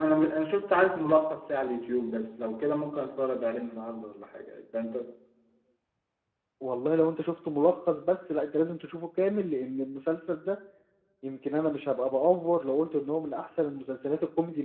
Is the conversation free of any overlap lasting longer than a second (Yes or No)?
Yes